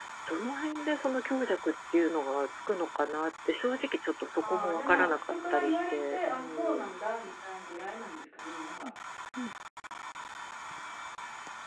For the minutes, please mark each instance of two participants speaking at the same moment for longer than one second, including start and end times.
4.4-7.0

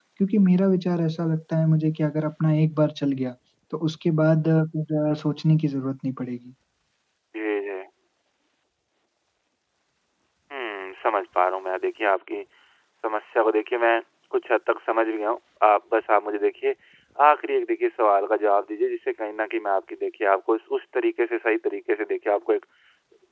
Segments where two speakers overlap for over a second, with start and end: none

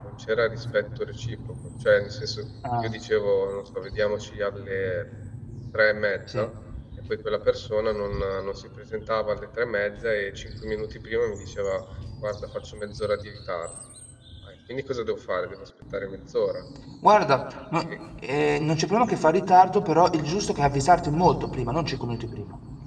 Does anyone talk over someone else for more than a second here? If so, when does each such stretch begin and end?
none

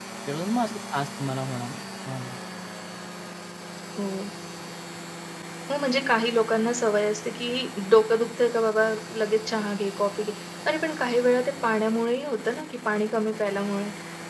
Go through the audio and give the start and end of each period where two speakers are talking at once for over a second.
none

